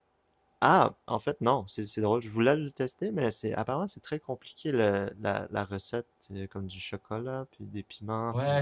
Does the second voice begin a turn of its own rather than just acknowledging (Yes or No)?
Yes